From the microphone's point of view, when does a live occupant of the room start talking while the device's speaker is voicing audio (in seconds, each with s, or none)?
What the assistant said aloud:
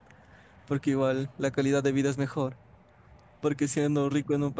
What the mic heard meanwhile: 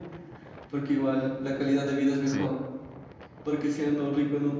2.2 s